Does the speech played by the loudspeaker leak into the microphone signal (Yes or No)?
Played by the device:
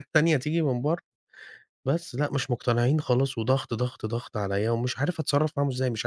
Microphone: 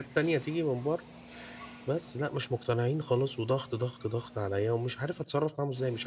Yes